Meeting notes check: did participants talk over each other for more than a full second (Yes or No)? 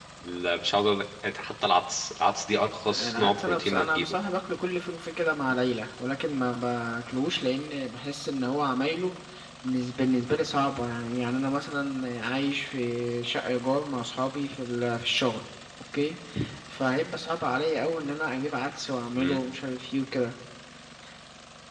Yes